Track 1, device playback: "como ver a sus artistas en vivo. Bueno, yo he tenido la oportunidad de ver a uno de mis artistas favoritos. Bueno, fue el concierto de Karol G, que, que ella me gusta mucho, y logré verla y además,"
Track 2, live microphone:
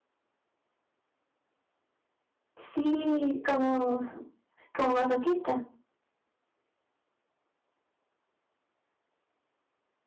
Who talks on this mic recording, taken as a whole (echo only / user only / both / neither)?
user only